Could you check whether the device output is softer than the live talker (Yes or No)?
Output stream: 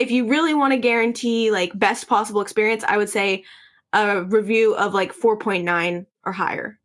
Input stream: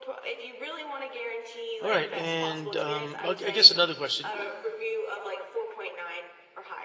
Yes